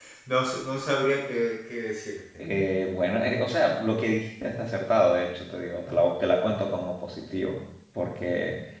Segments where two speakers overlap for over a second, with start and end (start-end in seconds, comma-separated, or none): none